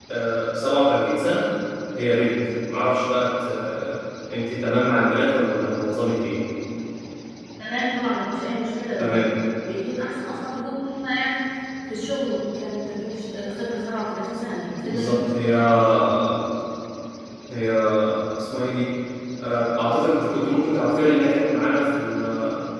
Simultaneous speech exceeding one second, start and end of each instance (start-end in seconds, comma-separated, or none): none